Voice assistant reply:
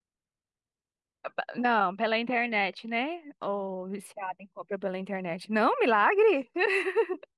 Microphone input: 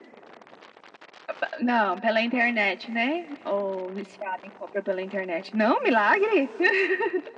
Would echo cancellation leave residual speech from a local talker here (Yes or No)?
No